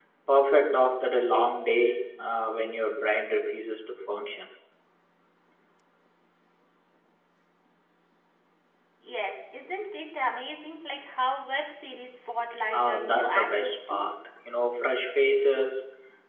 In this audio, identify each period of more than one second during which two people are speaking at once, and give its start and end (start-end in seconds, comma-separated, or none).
12.7-14.0